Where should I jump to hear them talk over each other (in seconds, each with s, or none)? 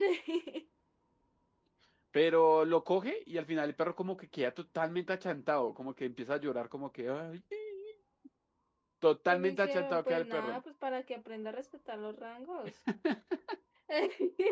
9.3 s